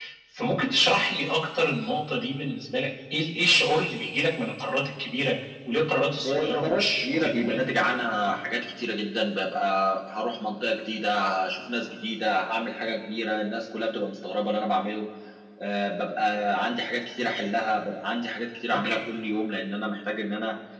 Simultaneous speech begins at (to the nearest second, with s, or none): 6 s